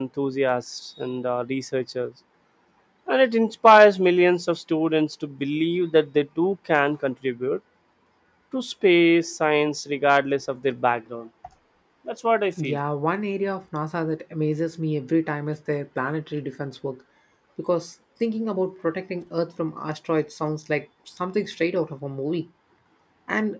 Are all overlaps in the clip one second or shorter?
Yes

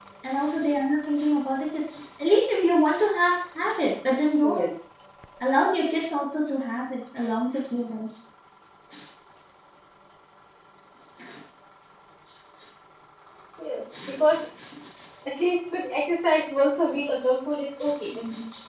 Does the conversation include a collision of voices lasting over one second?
No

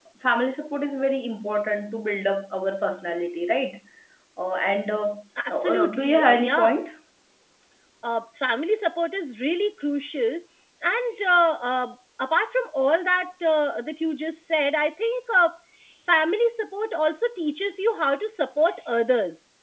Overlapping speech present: Yes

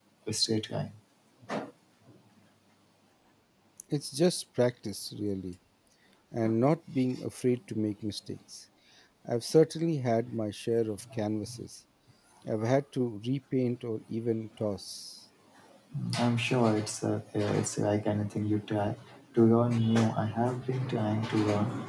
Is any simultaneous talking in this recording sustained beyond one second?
No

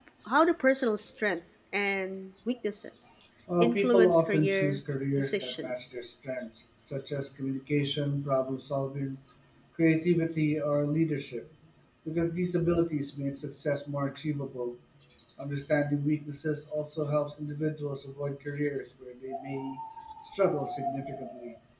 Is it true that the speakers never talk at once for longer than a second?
No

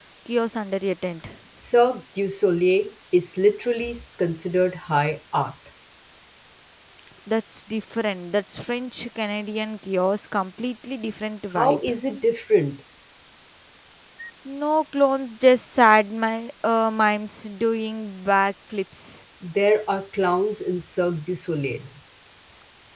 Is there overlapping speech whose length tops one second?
No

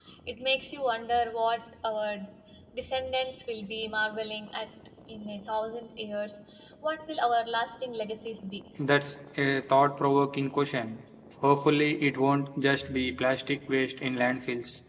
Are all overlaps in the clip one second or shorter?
Yes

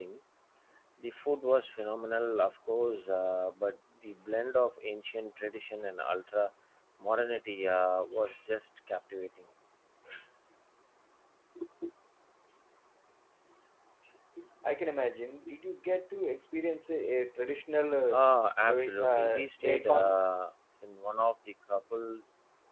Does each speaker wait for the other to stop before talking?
No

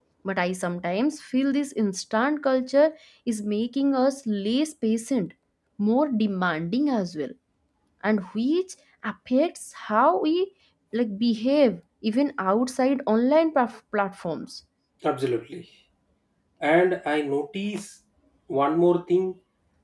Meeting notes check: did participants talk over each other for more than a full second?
No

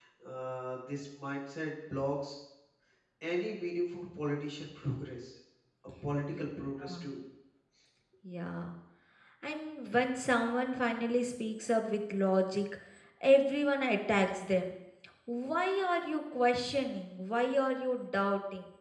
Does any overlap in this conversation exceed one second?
No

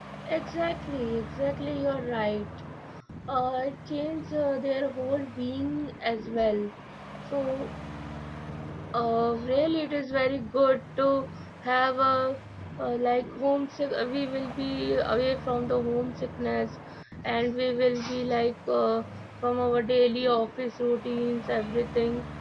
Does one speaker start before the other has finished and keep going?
No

